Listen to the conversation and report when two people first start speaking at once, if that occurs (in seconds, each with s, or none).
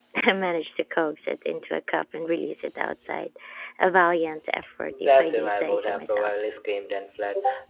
4.9 s